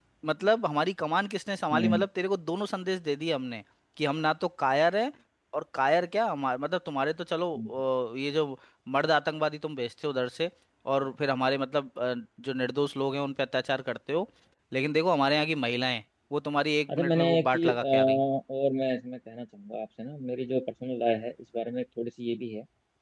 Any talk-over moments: Yes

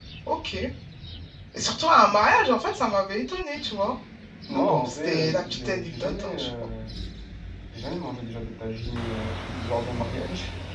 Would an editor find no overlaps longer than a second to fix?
No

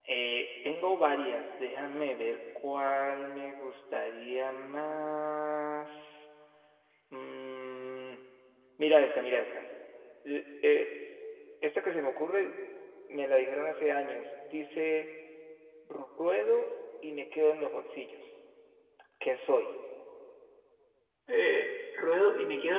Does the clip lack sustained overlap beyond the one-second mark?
Yes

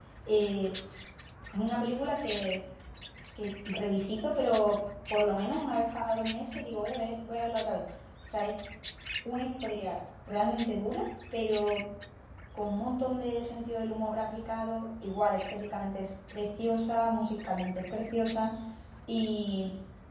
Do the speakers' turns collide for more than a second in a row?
No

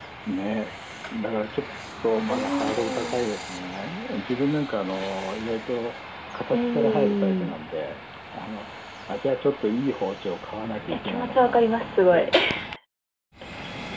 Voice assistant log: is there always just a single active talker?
No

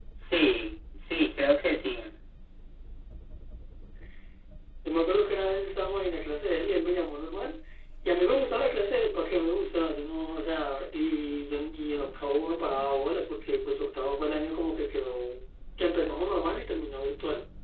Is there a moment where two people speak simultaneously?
No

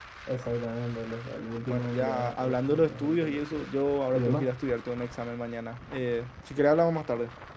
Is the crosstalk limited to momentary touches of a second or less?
No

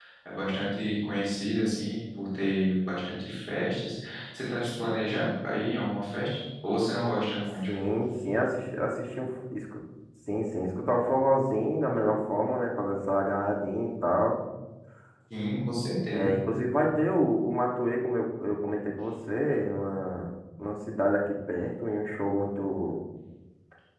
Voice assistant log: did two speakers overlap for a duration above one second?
No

